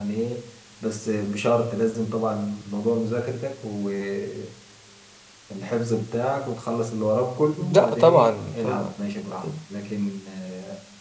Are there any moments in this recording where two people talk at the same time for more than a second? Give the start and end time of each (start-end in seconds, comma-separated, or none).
7.6-8.9